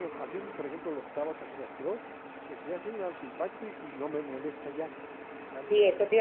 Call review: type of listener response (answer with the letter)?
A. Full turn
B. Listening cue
A